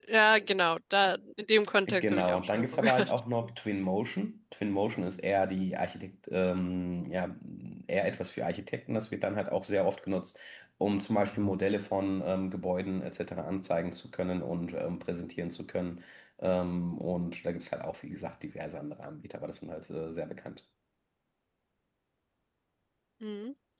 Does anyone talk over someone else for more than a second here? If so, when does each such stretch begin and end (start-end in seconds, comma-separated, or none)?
1.9-3.1